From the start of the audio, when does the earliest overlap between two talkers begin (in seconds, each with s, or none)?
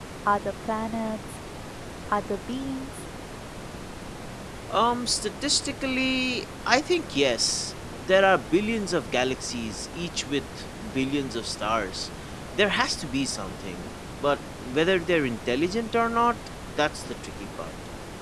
none